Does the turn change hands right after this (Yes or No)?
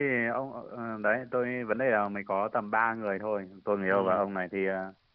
No